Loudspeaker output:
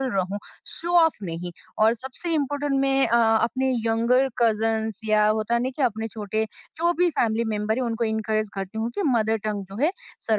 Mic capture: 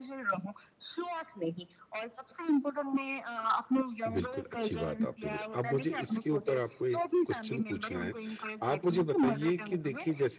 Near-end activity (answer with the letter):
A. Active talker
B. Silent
A